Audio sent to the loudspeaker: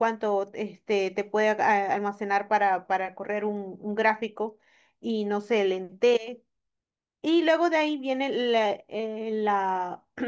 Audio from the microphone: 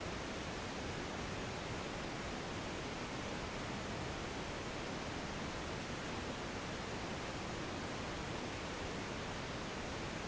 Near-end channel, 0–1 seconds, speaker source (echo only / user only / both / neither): neither